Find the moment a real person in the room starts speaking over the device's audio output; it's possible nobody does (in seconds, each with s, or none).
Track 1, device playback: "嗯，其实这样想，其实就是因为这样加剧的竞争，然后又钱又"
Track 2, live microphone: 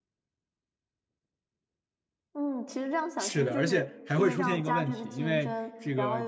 3.2 s